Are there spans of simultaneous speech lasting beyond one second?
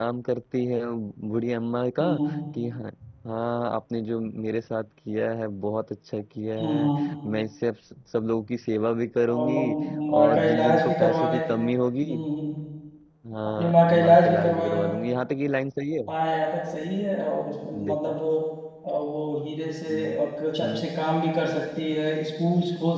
Yes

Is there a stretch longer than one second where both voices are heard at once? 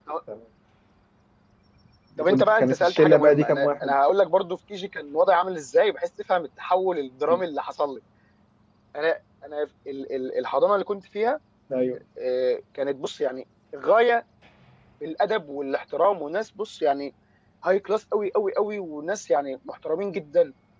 Yes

